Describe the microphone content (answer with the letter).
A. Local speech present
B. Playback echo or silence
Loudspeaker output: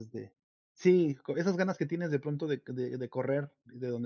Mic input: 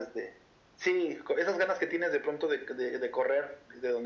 B